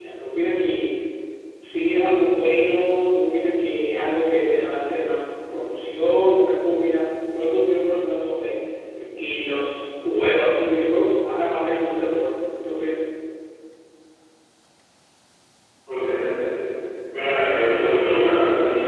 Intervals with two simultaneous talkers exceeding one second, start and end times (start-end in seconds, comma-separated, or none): none